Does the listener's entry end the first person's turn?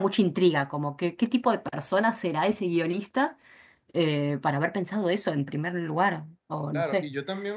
Yes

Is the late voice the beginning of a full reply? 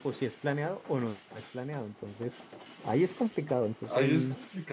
Yes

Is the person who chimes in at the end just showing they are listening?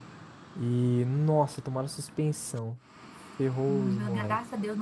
No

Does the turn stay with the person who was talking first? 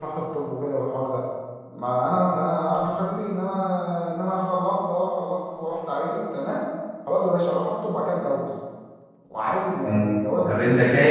No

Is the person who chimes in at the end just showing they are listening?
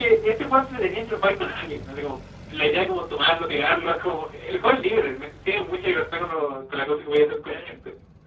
No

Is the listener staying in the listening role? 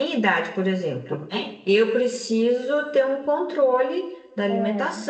Yes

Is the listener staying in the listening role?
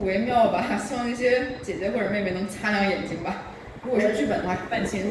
Yes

